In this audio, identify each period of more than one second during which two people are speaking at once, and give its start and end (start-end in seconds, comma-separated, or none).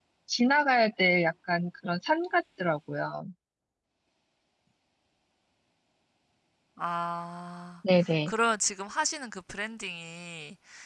none